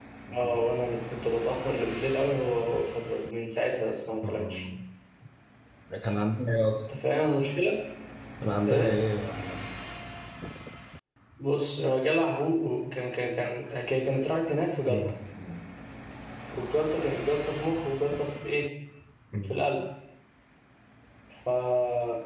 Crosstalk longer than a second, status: none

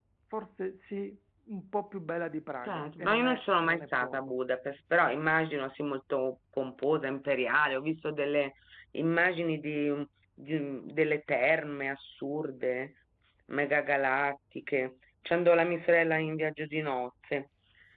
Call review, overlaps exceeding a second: present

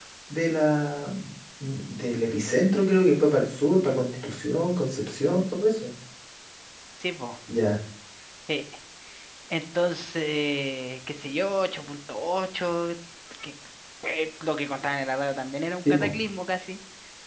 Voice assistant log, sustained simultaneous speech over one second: none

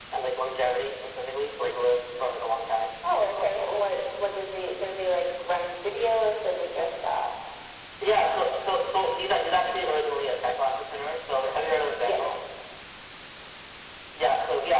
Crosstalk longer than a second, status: none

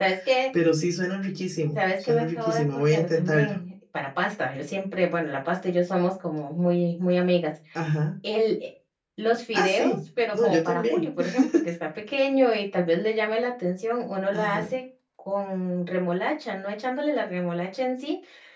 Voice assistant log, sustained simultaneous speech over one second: present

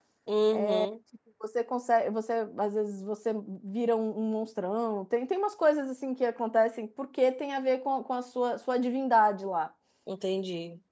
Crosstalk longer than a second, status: none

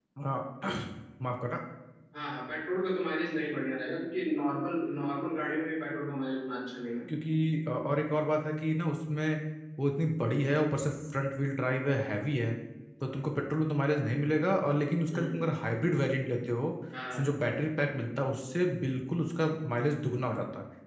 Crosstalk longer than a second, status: none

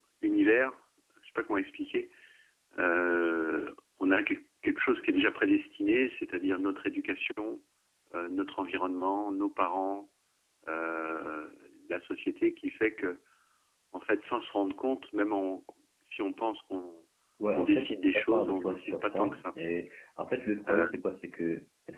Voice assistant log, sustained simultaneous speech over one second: present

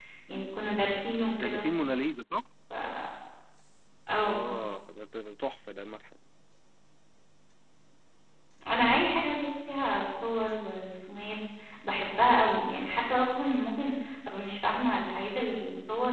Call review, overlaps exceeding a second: none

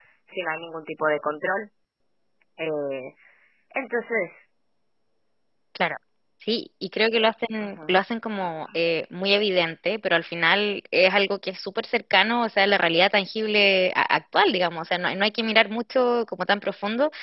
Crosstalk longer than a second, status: none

